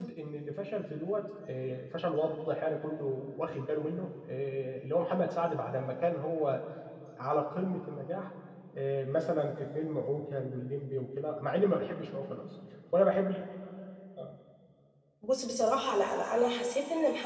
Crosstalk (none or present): none